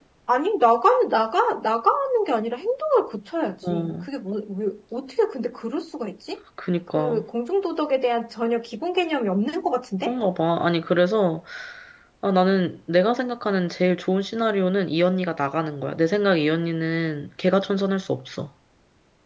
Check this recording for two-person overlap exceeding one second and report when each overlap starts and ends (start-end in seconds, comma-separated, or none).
none